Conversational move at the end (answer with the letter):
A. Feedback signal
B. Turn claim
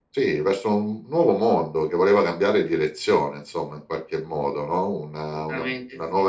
A